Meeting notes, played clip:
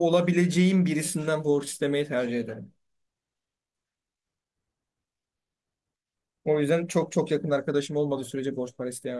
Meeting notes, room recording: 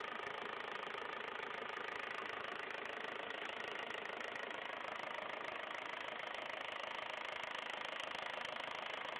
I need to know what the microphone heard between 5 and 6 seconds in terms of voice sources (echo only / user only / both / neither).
neither